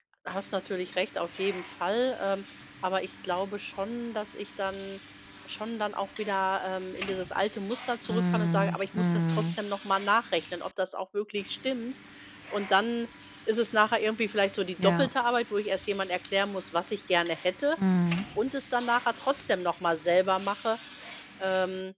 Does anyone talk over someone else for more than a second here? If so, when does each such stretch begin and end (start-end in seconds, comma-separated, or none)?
8.1-9.6